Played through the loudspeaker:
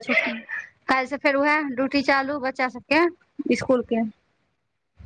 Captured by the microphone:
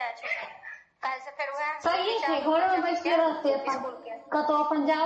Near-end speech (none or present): present